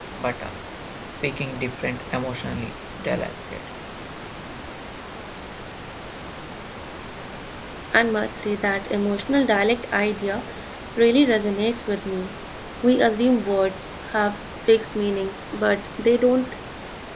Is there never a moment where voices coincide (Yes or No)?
Yes